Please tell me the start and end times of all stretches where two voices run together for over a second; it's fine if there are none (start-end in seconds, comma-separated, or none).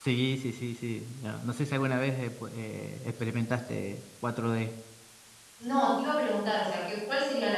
none